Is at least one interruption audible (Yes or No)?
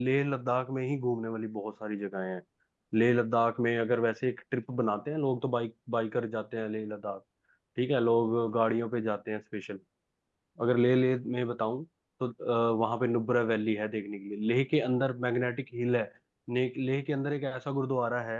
No